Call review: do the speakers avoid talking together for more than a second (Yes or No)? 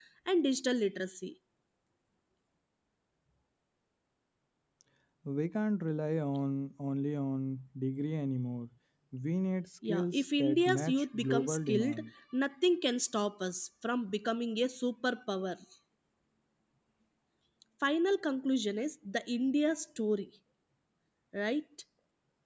No